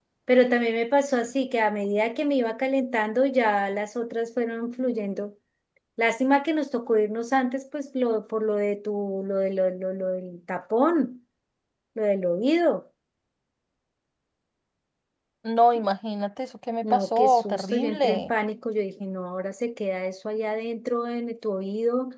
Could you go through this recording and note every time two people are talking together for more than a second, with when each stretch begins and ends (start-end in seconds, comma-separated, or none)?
16.8-18.3